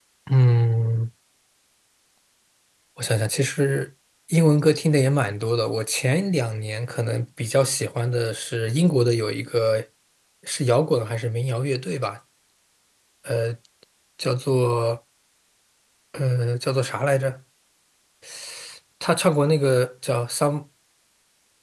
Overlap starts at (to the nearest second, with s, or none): none